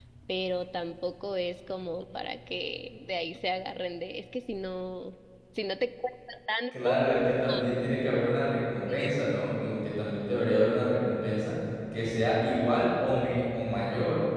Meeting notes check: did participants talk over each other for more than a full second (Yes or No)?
No